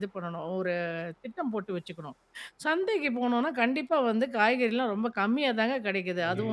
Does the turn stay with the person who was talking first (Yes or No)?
No